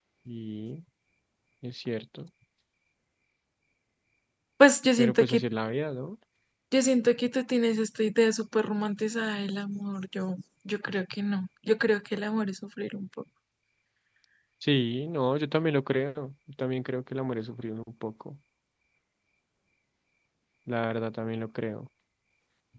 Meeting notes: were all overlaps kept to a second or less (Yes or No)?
Yes